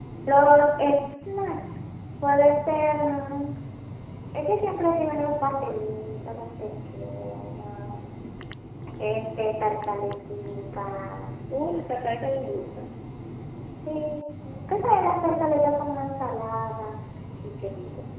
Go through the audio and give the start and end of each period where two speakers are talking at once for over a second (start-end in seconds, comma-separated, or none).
none